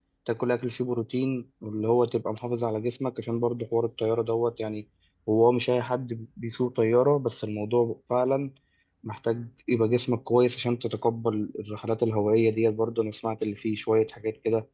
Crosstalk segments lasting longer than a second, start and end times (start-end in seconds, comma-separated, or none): none